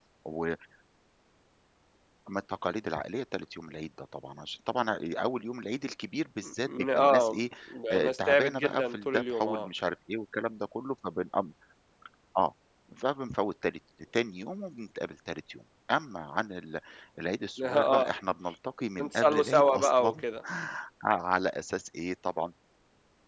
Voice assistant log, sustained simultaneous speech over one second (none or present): present